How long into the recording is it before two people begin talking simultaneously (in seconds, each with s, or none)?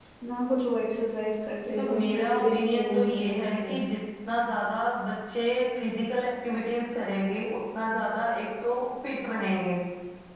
1.6 s